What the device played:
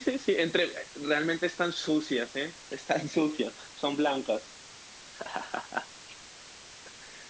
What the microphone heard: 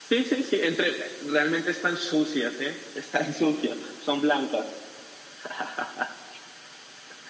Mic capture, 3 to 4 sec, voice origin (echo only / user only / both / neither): echo only